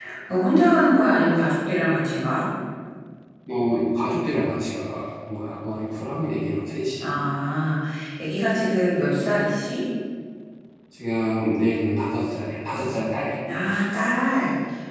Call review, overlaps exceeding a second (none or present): none